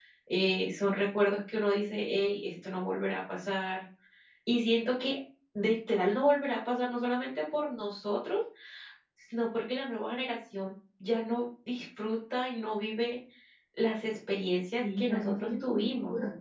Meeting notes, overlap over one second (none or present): present